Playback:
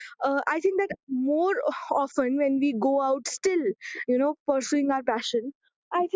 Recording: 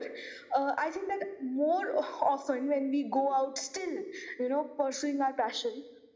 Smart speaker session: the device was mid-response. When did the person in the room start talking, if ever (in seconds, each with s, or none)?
none